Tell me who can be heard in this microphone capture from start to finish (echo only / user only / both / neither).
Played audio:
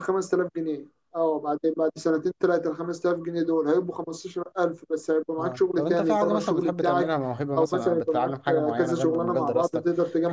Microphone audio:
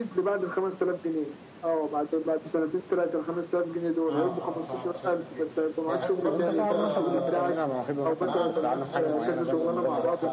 both